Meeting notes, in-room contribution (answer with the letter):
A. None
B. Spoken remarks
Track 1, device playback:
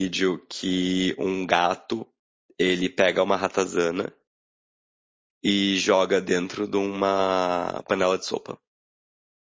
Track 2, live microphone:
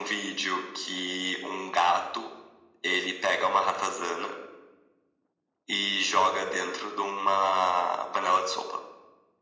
A